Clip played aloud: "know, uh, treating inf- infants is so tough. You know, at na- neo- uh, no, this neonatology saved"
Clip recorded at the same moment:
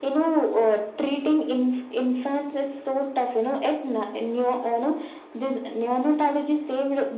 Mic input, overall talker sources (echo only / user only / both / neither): echo only